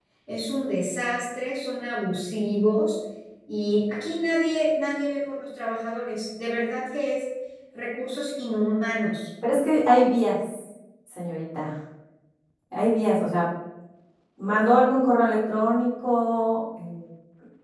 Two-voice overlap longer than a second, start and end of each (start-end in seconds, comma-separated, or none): none